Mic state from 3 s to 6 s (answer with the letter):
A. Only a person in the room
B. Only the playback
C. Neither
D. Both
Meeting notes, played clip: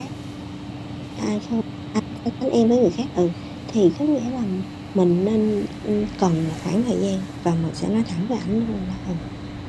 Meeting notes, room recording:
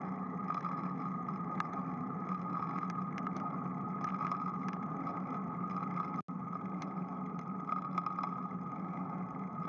C